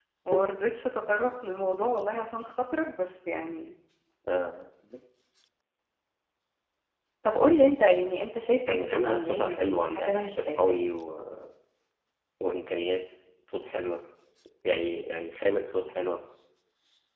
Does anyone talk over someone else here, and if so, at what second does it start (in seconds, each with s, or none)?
8.7 s